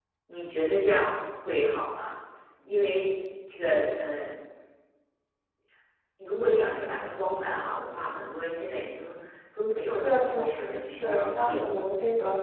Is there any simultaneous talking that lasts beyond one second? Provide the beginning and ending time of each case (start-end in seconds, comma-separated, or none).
10.0-11.7